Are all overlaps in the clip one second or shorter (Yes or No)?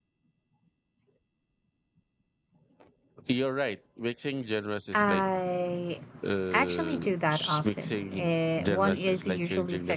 No